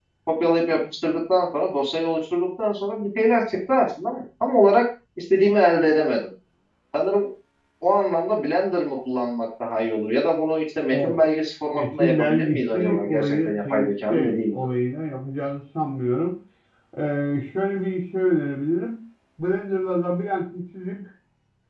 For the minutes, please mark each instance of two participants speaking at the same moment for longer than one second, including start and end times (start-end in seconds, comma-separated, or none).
11.7-14.6